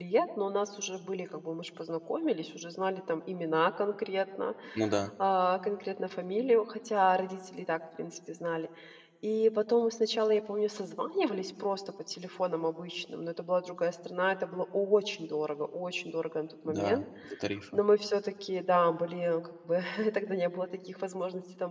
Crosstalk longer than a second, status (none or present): none